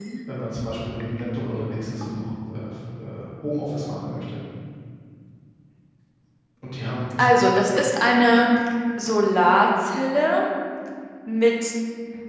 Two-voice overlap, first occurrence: none

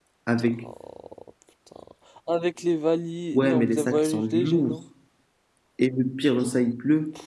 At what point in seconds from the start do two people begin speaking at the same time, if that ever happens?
3 s

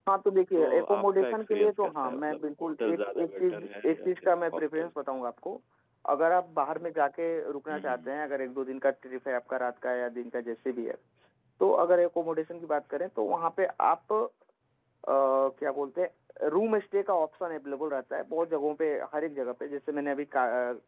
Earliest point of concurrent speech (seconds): 1 s

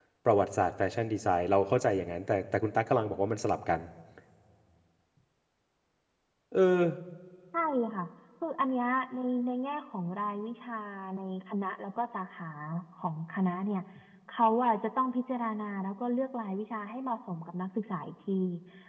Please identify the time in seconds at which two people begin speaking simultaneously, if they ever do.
none

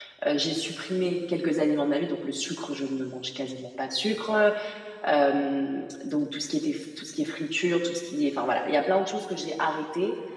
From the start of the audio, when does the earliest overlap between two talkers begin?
none

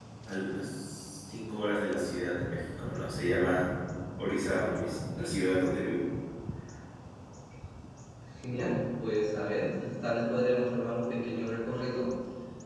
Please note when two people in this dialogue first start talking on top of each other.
none

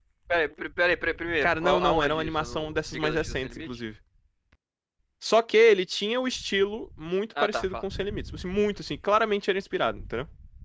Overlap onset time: 1 s

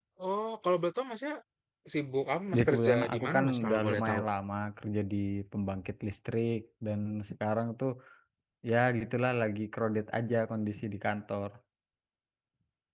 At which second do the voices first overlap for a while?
3 s

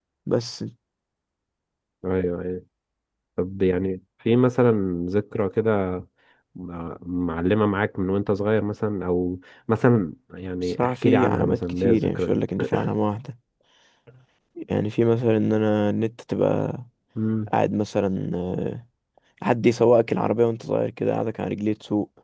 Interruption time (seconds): 11 s

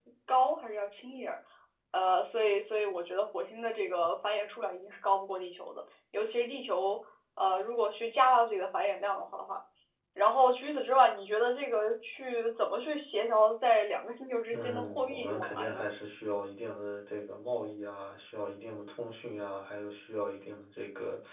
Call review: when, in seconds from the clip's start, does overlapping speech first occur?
15 s

